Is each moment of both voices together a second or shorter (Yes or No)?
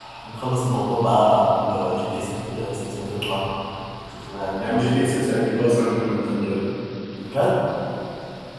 Yes